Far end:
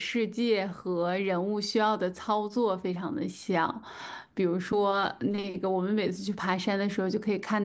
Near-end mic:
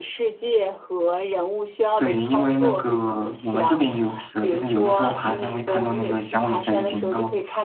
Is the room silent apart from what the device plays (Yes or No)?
No